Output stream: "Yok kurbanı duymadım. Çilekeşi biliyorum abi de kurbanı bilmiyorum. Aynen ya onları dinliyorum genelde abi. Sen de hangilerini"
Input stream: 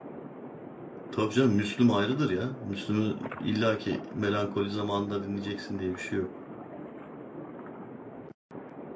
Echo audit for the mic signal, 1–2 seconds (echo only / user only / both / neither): user only